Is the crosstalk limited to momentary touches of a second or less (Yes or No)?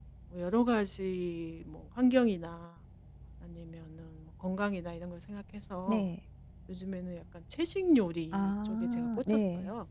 No